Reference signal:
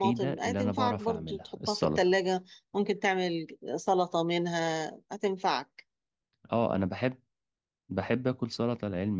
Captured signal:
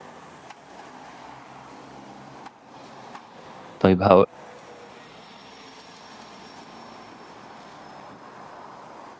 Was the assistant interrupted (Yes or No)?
Yes